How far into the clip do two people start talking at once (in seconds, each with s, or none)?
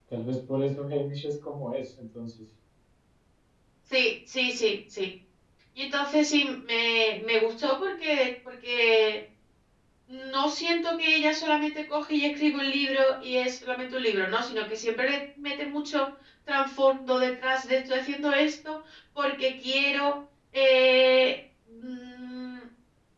none